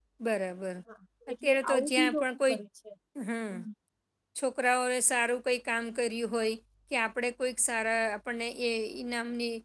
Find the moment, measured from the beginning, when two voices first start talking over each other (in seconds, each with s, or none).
1.3 s